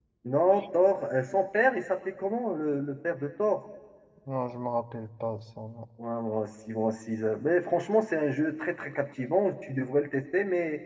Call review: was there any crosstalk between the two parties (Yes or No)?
No